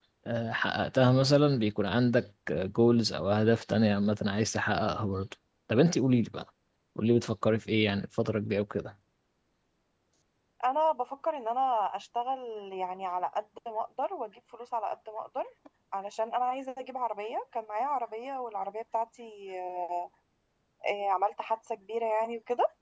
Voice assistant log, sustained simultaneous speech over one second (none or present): none